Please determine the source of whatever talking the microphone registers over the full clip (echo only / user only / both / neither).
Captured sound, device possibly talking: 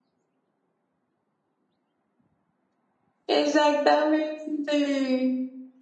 user only